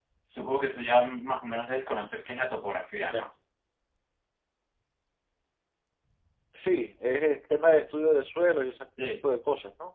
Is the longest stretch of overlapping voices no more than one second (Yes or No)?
Yes